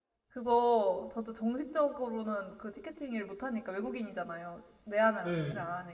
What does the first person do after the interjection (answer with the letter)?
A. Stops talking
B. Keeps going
B